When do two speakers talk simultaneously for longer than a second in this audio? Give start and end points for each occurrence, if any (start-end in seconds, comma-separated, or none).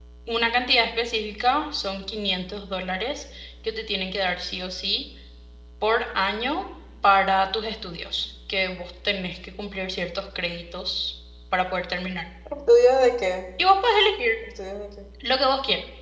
none